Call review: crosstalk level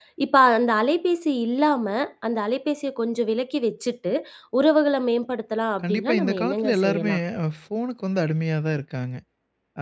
present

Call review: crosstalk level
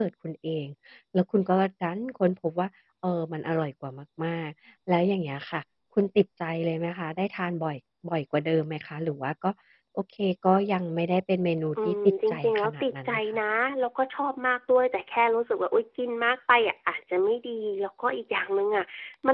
present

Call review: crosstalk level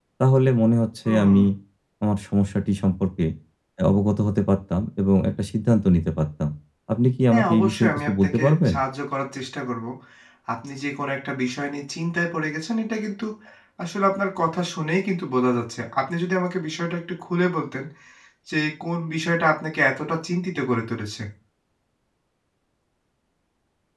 present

